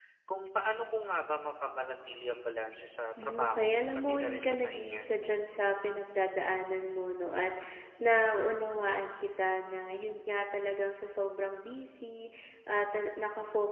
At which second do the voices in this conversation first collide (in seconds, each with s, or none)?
3.2 s